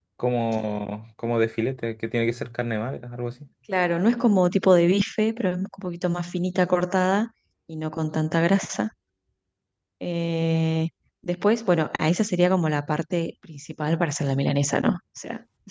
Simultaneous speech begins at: none

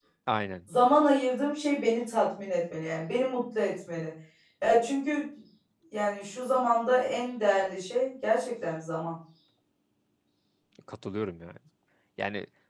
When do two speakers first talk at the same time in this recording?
none

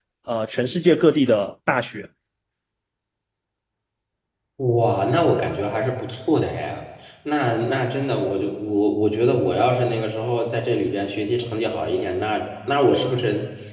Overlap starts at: none

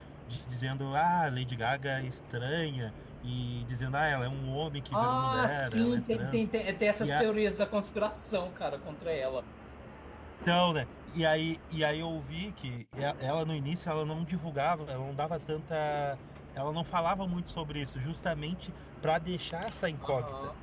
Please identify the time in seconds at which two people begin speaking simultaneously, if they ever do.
4.9 s

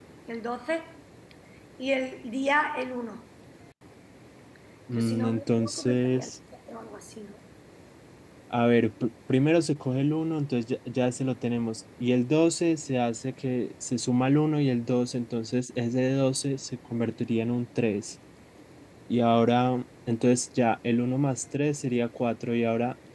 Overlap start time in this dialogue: 5.0 s

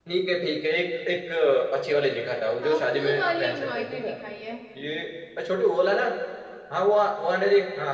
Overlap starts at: 2.6 s

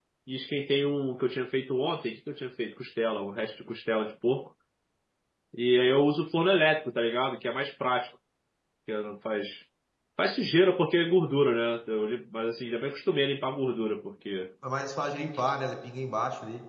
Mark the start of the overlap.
none

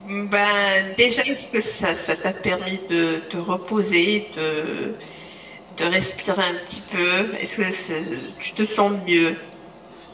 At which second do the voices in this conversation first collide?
none

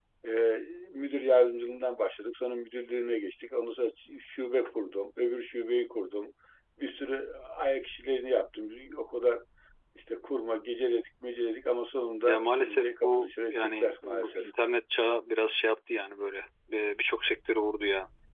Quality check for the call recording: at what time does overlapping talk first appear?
12.3 s

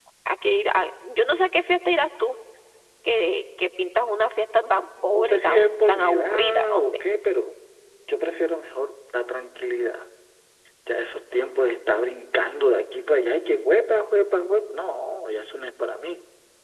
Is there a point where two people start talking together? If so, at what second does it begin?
4.6 s

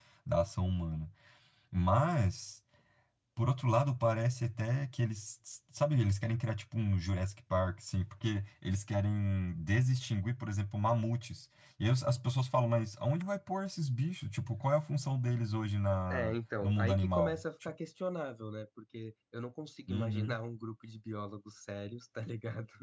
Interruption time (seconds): 16.1 s

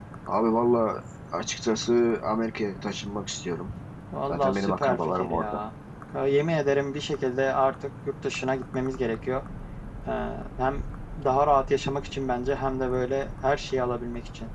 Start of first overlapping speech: 4.3 s

